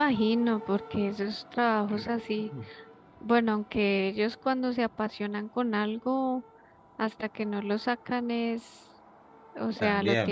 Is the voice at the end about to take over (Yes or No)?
No